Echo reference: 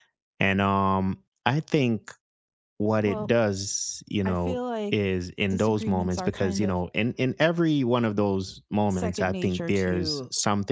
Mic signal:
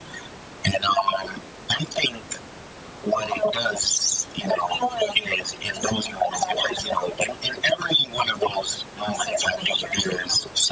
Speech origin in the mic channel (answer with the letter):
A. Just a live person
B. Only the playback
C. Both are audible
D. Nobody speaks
B